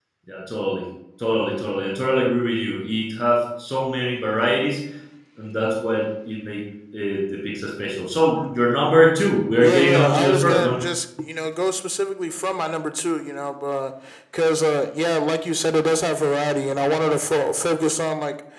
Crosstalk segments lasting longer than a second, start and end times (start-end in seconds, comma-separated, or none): 9.6-10.8